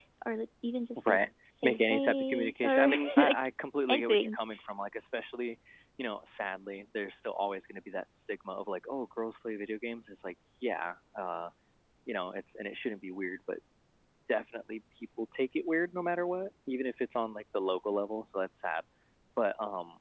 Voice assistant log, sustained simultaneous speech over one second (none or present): present